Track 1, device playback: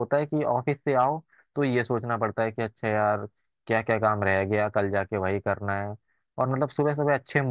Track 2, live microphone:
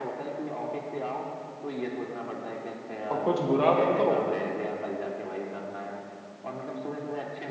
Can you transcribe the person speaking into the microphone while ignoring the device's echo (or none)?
और कुछ बुरा कर दो